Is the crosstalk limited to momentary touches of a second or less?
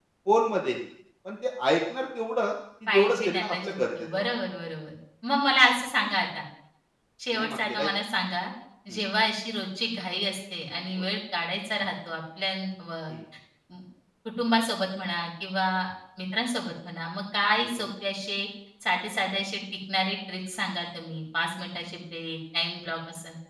No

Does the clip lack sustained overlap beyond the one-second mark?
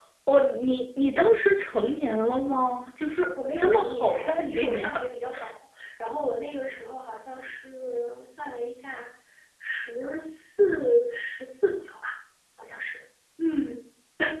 No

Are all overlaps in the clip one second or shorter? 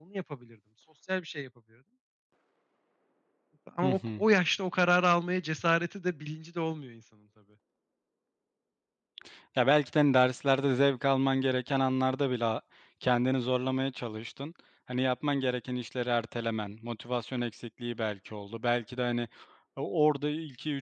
Yes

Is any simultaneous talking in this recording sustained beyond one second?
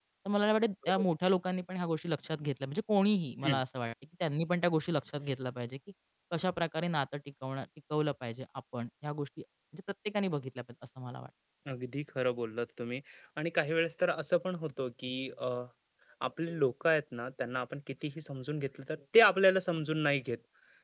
No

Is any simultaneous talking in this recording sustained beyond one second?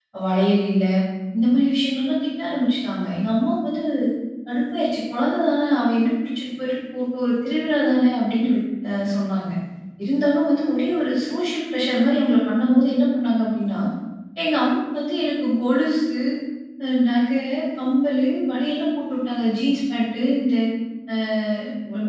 No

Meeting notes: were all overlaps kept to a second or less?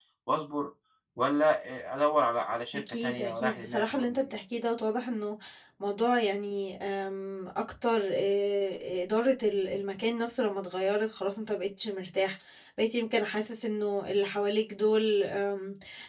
No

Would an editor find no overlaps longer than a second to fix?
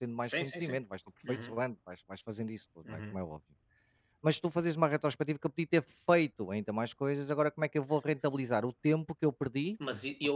Yes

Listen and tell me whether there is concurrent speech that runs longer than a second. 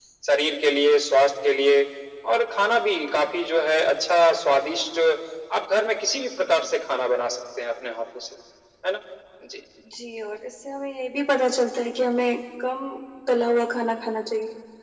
No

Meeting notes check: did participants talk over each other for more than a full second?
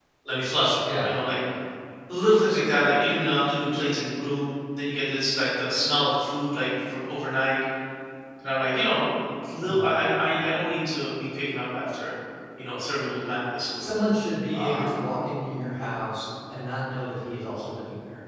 No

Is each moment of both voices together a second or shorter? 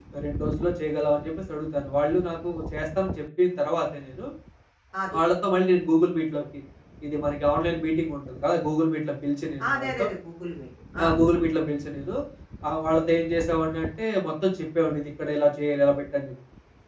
Yes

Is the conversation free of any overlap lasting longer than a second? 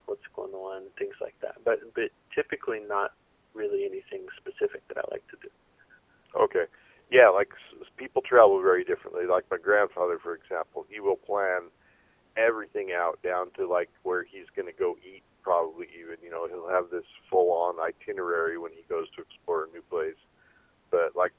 Yes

